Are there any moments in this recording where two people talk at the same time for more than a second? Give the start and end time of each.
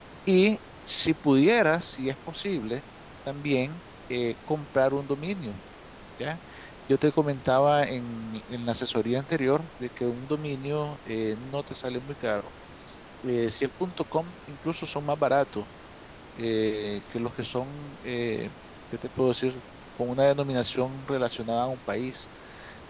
none

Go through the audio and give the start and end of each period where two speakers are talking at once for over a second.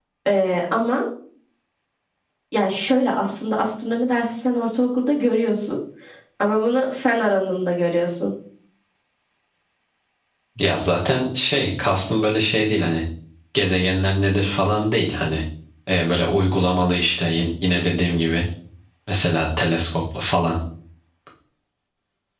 none

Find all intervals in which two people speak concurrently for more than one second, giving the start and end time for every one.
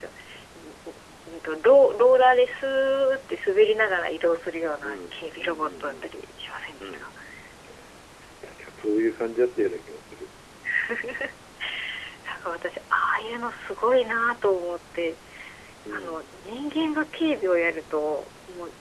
4.8-6.0

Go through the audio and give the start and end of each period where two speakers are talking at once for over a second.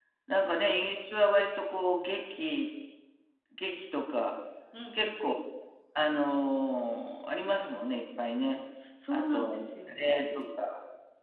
9.1-10.4

